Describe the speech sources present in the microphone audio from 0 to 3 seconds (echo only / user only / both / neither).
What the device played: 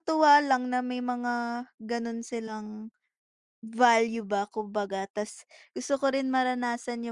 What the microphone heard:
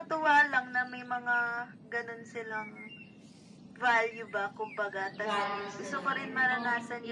echo only